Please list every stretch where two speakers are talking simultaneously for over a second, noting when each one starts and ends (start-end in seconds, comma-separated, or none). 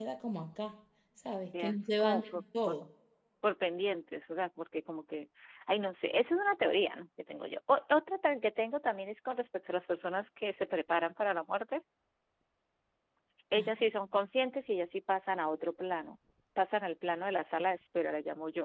1.5-2.8